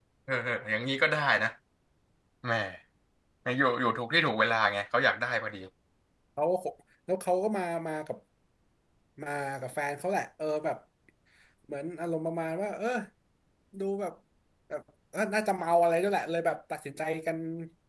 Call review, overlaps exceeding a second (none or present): none